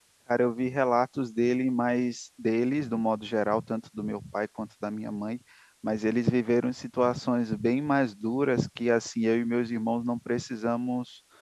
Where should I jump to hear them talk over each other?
none

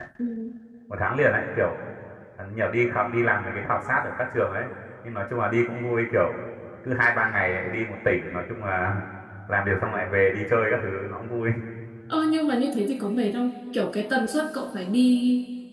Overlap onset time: none

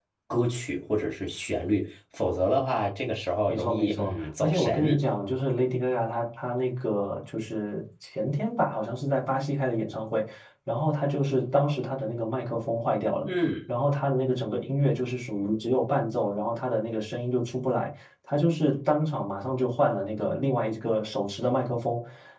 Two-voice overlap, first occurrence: 3.5 s

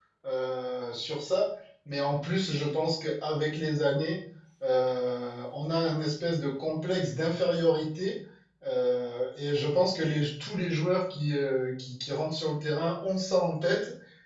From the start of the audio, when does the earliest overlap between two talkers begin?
none

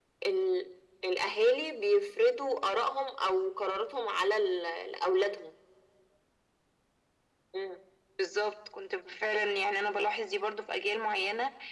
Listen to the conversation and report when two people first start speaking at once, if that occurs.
none

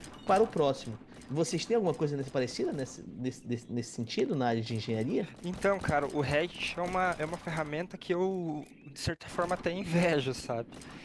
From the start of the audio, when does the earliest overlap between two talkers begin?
none

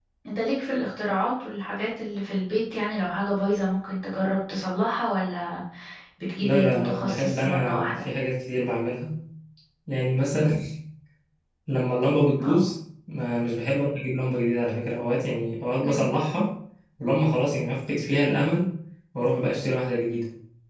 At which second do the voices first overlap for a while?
6.4 s

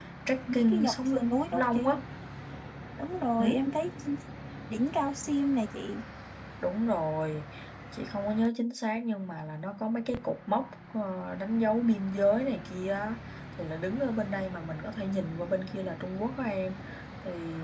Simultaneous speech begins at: 0.5 s

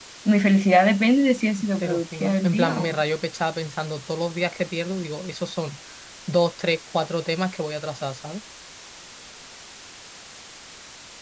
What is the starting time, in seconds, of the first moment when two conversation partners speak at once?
1.6 s

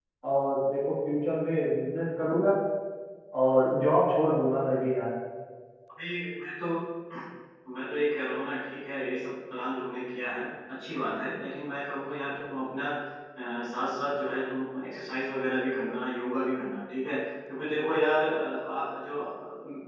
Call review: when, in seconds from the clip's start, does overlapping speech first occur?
none

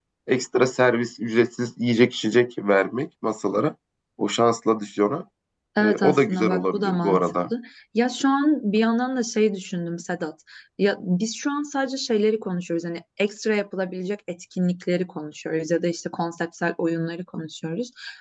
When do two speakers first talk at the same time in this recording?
5.8 s

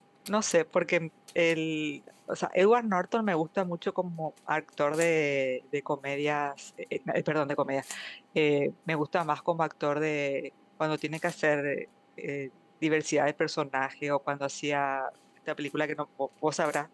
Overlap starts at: none

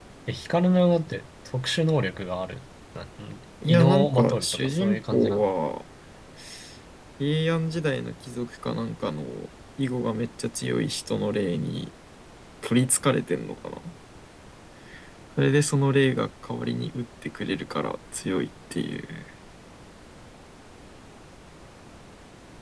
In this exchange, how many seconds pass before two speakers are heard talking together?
3.6 s

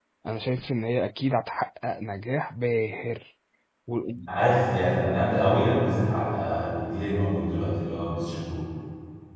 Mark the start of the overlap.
none

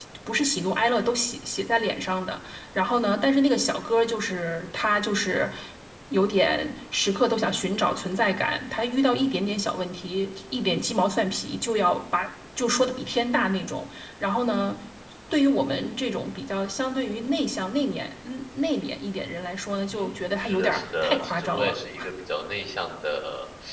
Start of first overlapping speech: 19.9 s

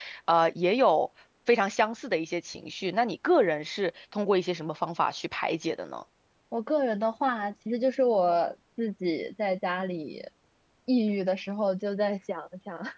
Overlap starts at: none

